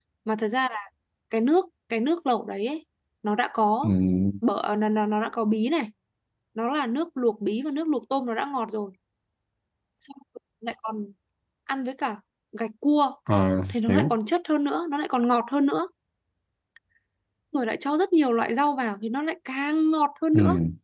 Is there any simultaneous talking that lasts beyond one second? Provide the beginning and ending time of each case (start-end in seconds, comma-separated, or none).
none